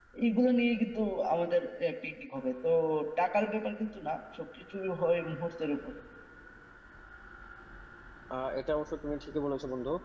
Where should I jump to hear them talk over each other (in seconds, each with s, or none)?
none